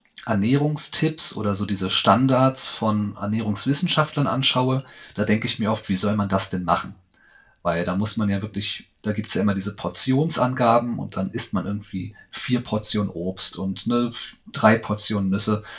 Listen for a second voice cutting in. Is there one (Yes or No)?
No